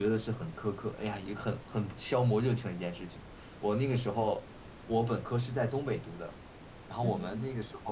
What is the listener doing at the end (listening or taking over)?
listening